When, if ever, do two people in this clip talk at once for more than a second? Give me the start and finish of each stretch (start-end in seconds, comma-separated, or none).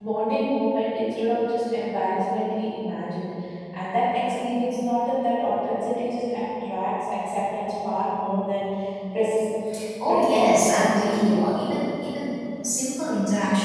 10.1-11.5